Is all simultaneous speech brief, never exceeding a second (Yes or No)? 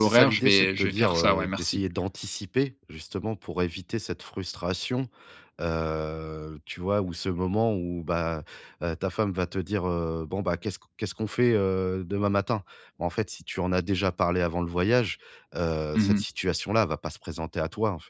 No